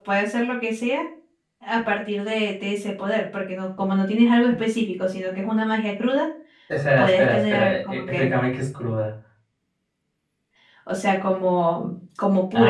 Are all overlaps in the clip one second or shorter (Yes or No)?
No